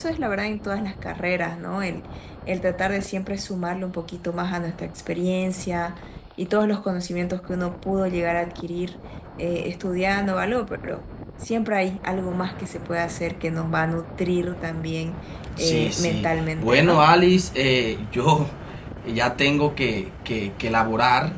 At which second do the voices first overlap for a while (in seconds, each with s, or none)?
15.6 s